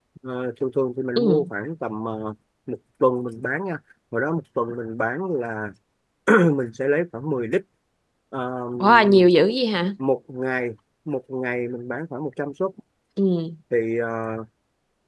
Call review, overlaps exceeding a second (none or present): none